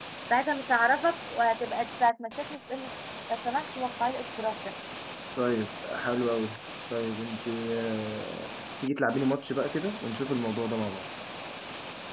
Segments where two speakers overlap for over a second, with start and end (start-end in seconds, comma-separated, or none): none